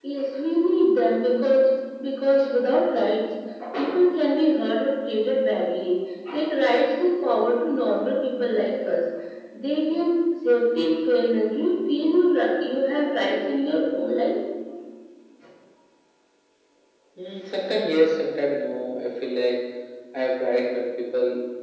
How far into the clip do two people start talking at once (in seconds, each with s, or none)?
none